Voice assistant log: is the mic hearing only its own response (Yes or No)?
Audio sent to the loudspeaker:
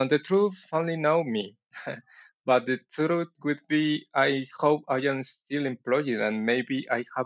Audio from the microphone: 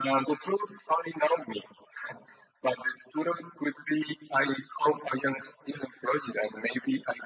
Yes